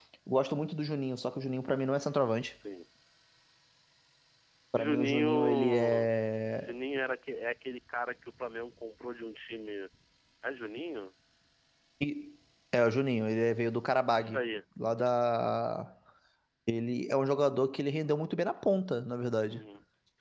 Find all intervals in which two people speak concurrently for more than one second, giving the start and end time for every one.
4.8-6.1

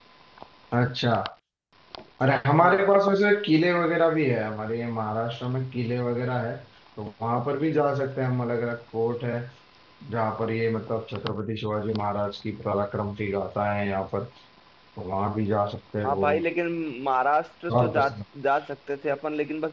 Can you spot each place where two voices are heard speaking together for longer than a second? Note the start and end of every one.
none

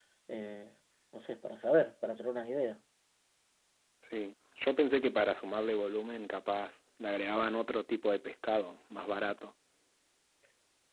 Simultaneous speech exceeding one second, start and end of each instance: none

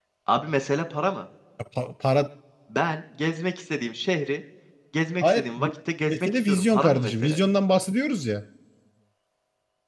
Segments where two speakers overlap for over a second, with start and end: 6.1-7.4

